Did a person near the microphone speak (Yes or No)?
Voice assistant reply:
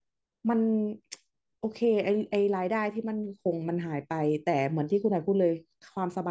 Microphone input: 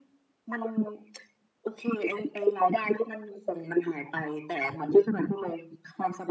No